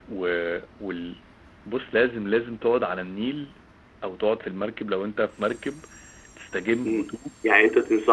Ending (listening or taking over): taking over